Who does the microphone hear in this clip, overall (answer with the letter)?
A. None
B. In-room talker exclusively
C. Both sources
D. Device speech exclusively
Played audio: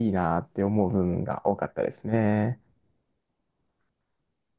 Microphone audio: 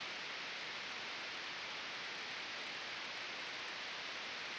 A